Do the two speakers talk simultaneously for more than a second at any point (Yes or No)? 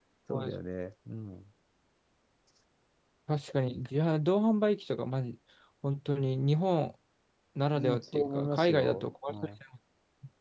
Yes